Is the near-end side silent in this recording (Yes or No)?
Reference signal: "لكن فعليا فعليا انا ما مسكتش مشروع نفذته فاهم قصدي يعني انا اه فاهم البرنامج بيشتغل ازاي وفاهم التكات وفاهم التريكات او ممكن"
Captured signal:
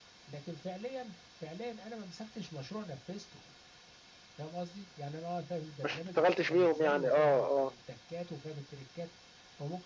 No